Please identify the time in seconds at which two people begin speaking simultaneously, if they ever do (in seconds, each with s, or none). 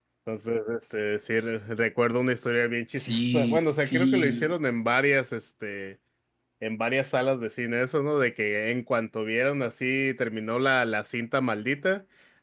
3.0 s